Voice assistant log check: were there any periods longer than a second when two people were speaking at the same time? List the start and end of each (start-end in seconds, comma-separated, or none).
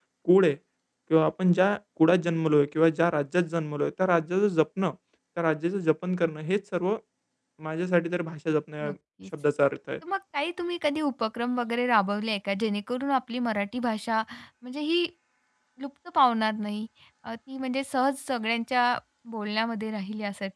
none